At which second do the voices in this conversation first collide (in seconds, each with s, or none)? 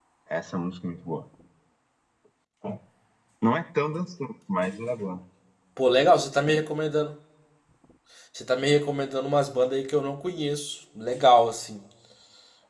none